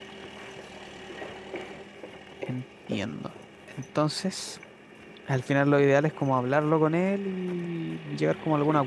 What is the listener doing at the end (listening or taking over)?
taking over